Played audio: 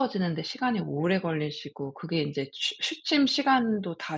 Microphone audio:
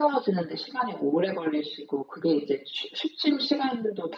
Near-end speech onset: none

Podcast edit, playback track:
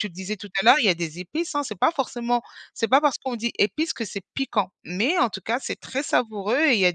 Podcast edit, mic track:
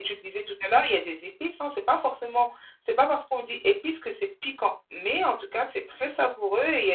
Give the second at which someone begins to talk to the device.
none

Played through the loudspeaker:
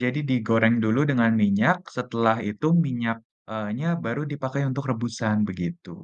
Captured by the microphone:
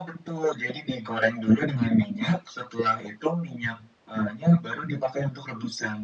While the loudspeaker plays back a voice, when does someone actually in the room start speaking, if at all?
none

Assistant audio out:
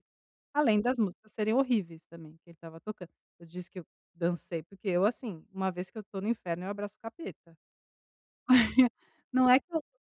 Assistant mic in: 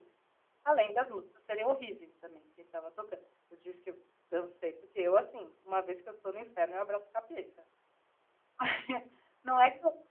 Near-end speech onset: none

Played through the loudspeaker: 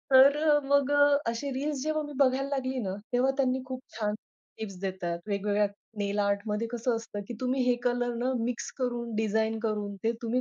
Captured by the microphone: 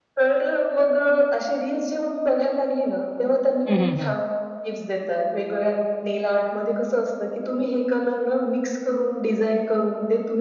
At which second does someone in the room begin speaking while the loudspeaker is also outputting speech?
4 s

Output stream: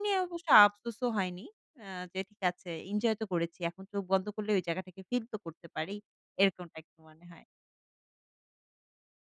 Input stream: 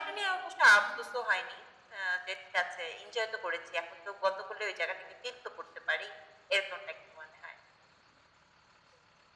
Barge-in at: none

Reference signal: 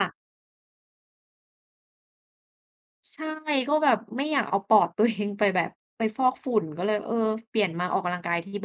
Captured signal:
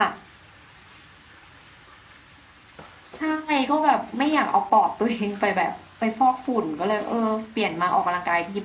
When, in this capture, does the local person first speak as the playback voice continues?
none

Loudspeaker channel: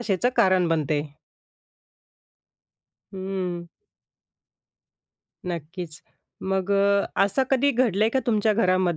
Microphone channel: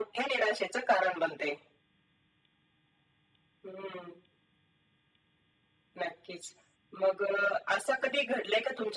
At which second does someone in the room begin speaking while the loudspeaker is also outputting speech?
none

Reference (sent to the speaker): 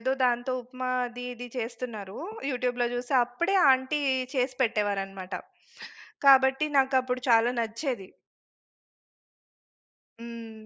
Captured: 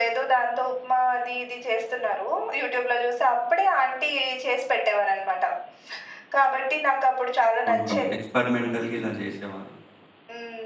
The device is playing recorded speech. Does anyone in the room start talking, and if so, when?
8 s

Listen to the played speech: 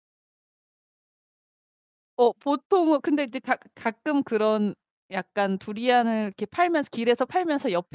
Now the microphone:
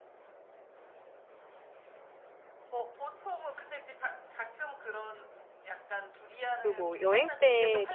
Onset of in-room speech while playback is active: 7 s

